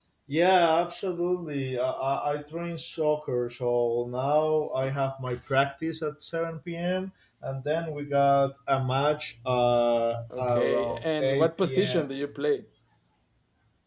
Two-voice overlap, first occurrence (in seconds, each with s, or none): 10.3 s